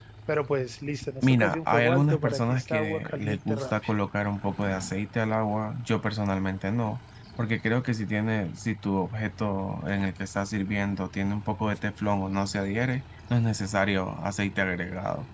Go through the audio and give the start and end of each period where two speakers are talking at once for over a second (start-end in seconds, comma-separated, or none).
1.2-3.9